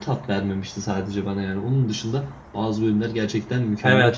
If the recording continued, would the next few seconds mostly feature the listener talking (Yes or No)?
Yes